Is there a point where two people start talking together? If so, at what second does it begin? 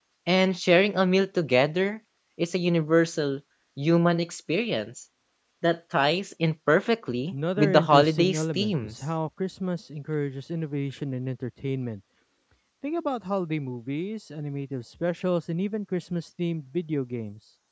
7.3 s

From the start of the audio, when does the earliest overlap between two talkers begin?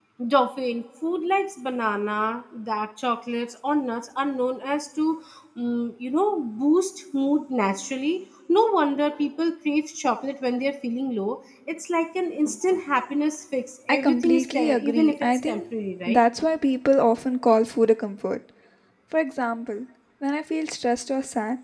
13.9 s

